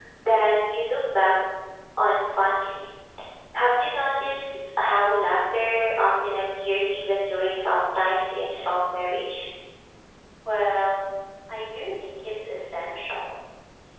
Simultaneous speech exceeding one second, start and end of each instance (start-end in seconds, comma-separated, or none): none